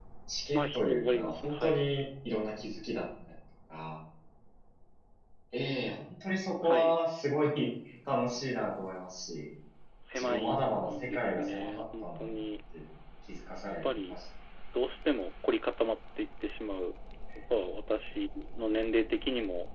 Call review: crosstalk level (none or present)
present